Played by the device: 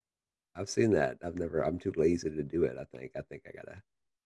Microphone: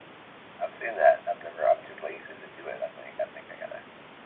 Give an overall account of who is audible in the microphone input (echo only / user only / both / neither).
echo only